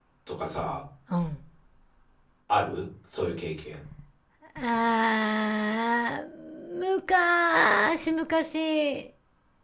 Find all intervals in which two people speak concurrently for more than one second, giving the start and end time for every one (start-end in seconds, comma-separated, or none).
none